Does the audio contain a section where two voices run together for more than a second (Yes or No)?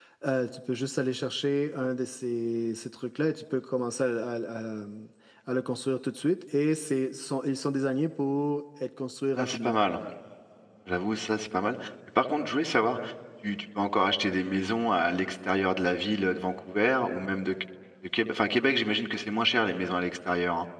No